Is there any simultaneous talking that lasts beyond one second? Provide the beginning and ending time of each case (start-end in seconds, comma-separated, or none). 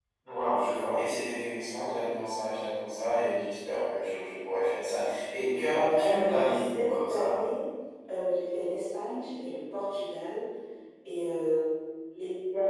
6.0-7.4